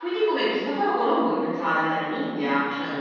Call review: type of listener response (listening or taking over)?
taking over